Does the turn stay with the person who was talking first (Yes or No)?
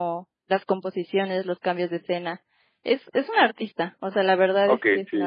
No